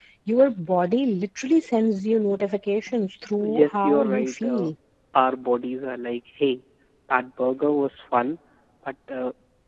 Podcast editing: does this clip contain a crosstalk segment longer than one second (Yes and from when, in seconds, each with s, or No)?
Yes, from 3.4 s